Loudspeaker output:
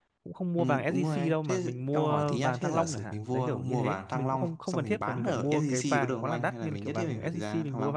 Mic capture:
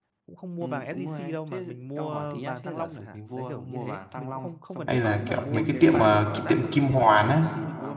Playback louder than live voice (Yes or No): No